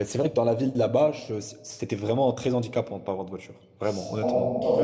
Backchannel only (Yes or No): No